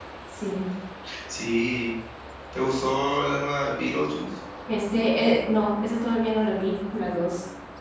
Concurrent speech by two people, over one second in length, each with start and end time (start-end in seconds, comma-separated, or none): none